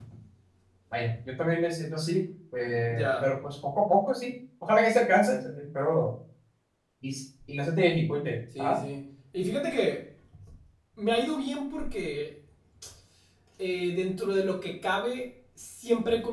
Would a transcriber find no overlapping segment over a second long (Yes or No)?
Yes